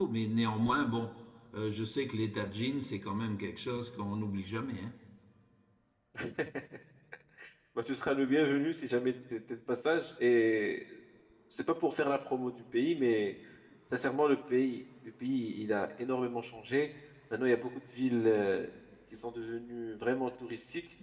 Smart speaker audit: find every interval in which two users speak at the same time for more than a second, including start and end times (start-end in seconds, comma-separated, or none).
none